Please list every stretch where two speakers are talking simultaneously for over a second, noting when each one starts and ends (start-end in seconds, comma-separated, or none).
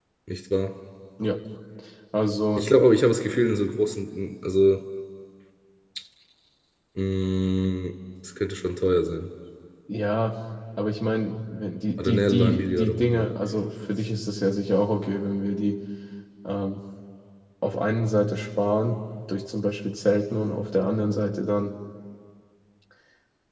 12.0-13.3